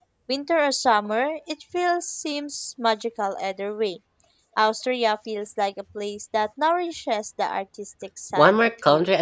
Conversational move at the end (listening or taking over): taking over